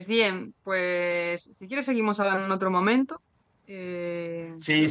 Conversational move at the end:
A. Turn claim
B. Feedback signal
A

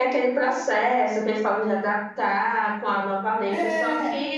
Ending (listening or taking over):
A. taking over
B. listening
B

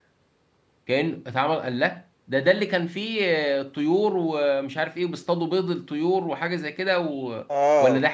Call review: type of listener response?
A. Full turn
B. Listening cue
A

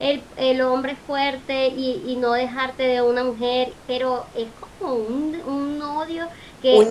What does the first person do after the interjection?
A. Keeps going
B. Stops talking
B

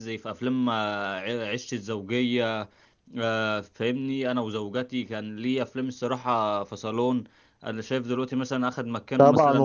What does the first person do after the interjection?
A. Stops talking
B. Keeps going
A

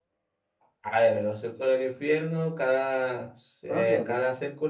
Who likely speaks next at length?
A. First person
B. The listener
A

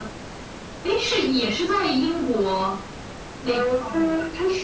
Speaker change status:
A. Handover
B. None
A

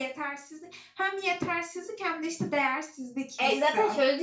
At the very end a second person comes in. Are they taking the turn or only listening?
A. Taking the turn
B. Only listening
A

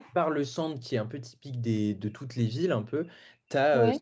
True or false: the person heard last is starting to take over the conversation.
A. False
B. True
A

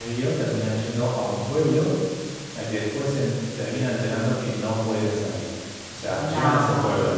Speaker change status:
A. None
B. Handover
A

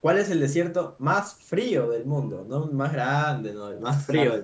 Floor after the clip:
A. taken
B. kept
A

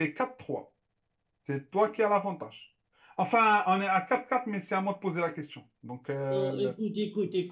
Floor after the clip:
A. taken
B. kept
A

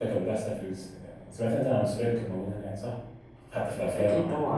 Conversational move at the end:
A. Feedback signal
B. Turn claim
B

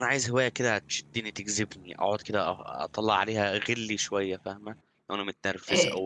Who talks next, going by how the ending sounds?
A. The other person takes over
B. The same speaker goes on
A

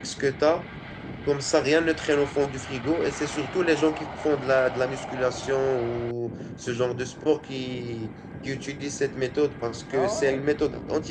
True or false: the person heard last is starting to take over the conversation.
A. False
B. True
A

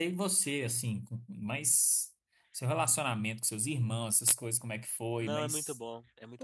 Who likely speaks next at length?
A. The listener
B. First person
A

